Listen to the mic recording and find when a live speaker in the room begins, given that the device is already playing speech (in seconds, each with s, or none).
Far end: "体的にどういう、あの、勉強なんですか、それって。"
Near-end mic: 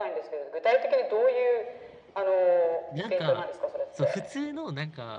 2.9 s